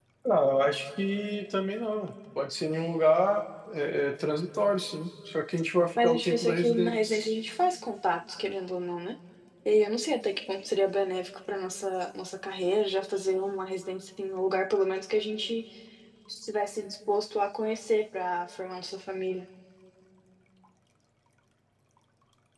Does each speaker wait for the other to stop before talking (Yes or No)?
No